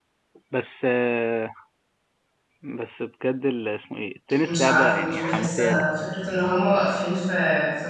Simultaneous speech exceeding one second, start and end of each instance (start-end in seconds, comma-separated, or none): 4.4-5.9